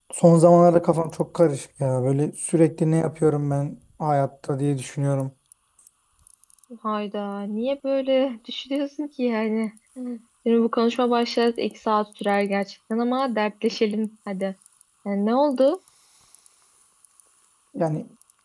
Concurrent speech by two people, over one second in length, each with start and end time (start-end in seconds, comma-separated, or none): none